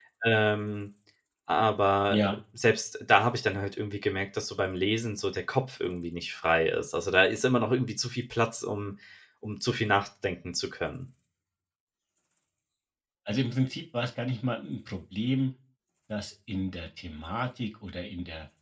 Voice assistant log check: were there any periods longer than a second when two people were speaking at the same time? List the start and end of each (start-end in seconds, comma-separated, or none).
none